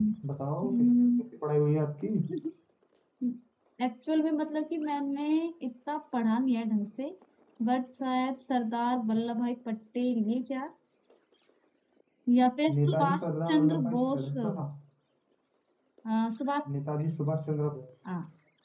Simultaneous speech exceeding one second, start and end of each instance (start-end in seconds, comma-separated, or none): 12.8-14.3